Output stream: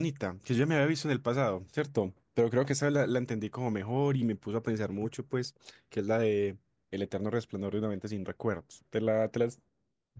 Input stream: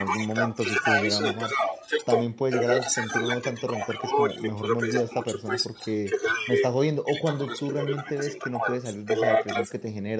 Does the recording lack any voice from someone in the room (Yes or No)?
No